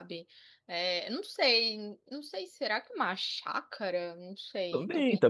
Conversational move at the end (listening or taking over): taking over